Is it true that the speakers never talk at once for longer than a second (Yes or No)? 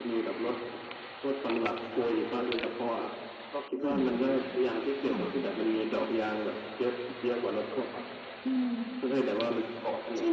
Yes